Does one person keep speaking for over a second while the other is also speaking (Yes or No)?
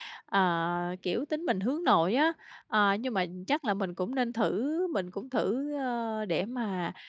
No